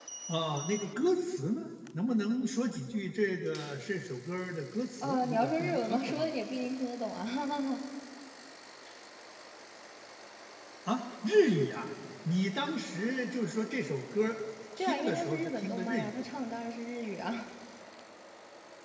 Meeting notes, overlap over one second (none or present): present